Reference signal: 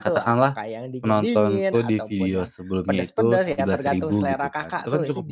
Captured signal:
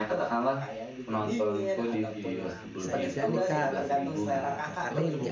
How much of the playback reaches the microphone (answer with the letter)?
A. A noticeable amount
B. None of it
A